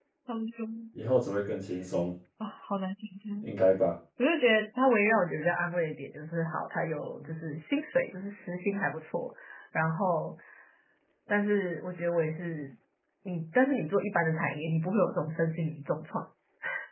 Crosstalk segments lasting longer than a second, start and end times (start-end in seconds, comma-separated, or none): none